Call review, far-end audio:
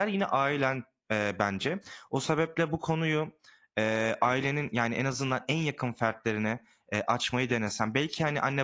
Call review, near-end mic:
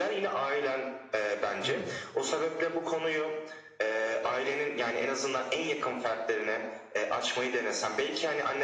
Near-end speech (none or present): present